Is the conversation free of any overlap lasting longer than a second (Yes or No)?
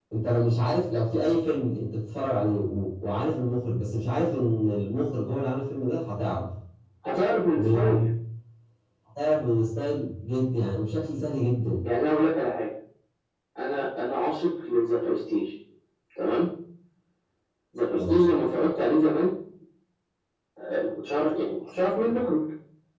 Yes